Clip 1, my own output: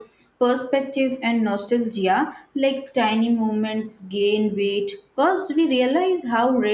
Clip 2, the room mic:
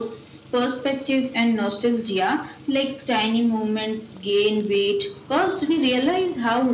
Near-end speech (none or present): none